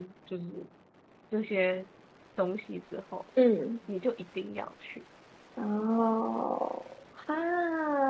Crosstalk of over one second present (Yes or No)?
No